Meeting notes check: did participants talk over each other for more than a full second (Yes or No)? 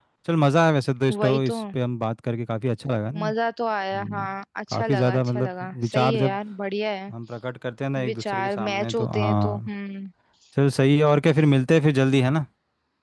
Yes